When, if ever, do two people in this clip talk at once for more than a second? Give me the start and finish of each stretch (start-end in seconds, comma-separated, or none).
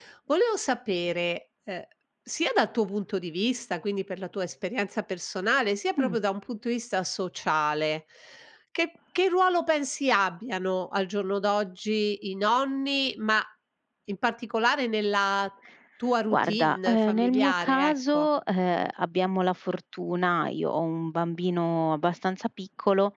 16.3-18.3